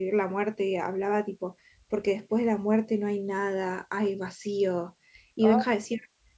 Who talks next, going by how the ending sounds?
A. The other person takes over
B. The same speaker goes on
B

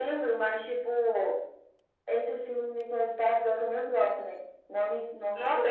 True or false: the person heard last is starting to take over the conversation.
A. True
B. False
A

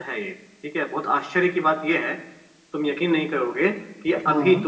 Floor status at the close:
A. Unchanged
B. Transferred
A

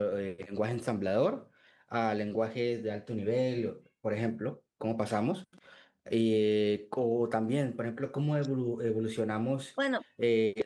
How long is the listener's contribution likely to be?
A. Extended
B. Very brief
B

